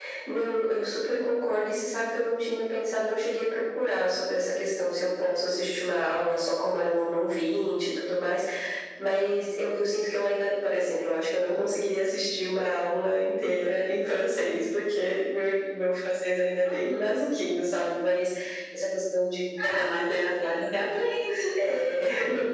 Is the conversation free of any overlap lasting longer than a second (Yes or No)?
Yes